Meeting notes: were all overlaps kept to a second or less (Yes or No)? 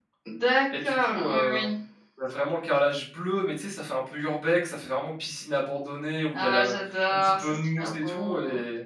No